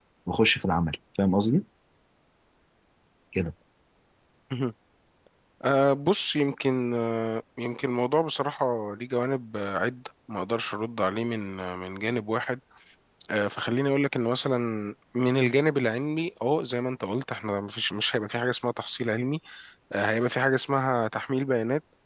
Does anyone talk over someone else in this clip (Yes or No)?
No